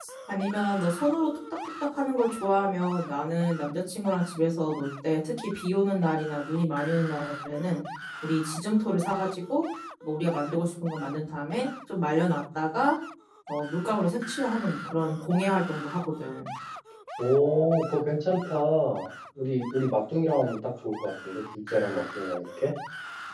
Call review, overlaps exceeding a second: none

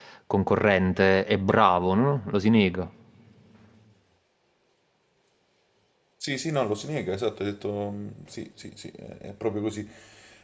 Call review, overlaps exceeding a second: none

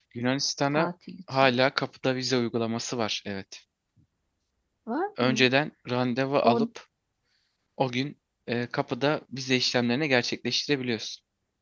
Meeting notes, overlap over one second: none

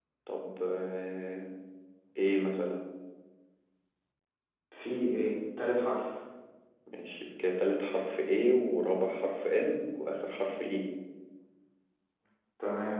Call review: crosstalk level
none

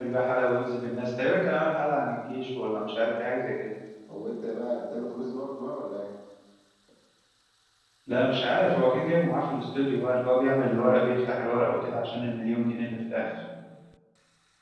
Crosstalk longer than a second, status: none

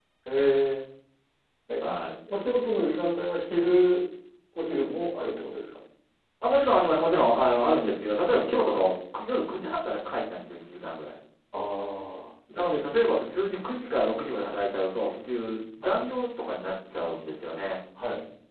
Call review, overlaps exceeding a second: none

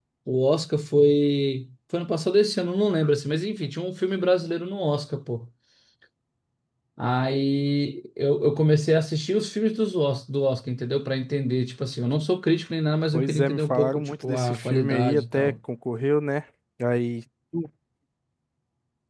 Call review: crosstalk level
present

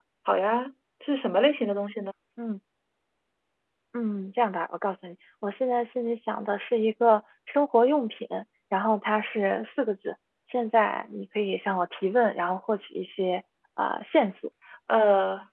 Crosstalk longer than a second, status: none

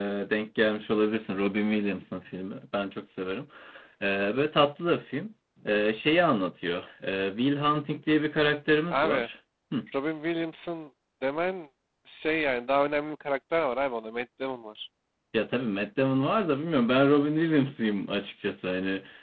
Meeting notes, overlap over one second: none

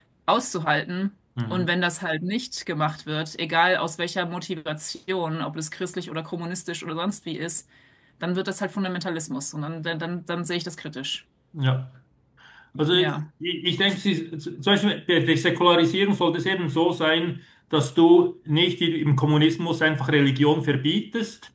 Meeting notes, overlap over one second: none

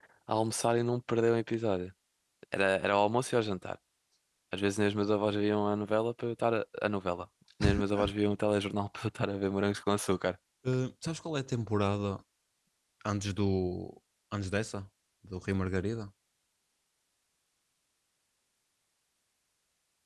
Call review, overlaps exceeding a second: none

